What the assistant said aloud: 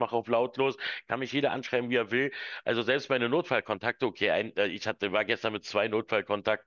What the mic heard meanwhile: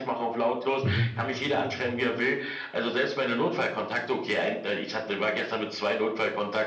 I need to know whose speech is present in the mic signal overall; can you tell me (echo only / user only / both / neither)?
both